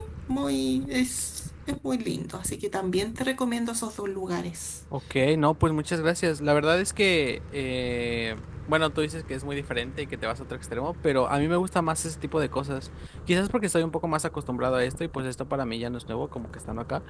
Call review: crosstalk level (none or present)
none